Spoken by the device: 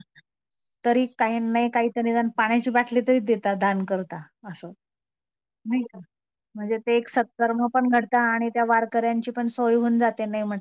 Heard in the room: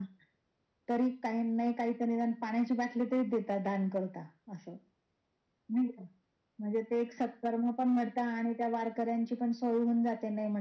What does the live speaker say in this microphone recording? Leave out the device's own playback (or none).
none